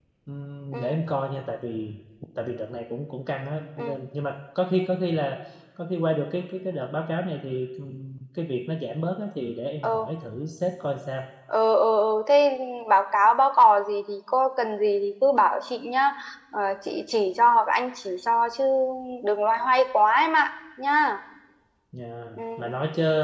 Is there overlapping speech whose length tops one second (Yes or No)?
No